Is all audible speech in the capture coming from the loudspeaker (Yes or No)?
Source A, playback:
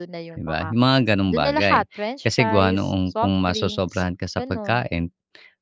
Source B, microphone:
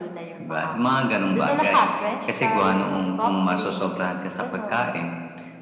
Yes